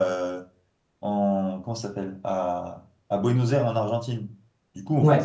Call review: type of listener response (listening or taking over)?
listening